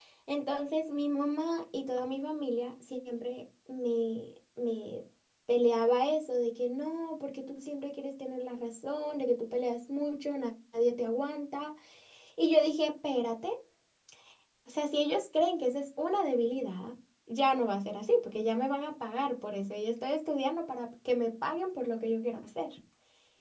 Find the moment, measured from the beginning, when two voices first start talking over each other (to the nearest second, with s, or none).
none